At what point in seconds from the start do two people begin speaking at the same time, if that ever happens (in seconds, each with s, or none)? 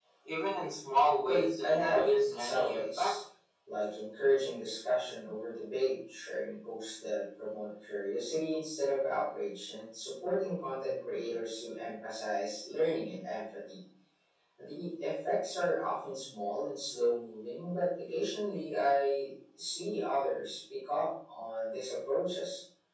1.3 s